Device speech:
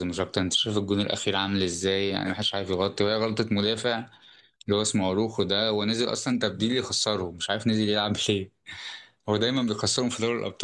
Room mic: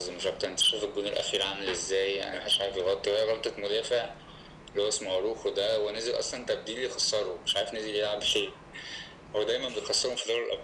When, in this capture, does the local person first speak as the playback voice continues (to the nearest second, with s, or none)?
none